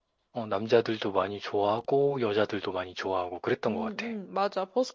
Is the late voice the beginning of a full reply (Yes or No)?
Yes